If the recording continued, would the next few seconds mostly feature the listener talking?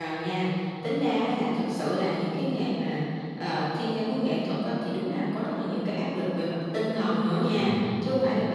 No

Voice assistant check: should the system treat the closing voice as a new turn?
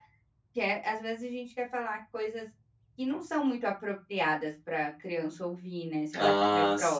Yes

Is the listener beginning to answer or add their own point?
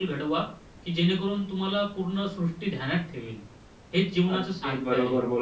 Yes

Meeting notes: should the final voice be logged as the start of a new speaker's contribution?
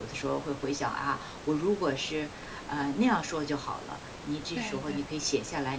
No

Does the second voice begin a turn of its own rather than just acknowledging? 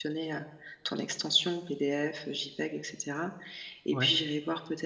No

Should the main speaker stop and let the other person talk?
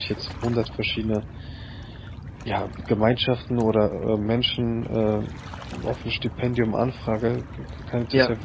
No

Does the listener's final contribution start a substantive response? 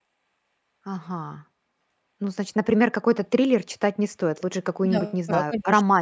Yes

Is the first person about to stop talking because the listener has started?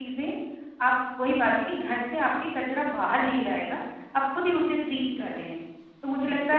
No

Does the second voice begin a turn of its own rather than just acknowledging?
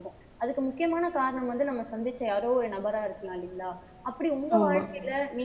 No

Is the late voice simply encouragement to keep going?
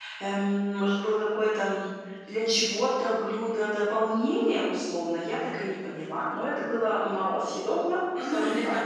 No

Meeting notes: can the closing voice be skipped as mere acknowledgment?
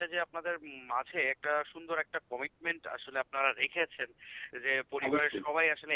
Yes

